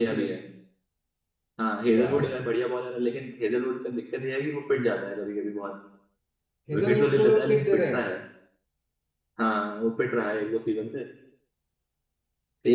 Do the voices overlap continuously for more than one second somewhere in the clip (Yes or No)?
Yes